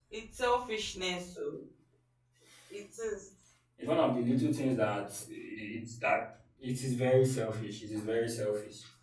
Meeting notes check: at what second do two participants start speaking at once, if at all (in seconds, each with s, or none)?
none